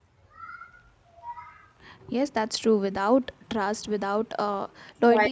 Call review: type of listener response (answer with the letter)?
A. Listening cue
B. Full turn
A